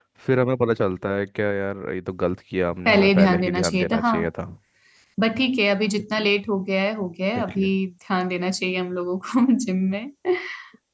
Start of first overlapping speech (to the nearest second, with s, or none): 3 s